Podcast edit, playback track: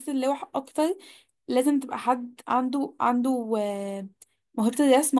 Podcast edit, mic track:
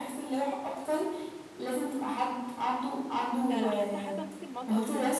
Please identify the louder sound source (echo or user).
echo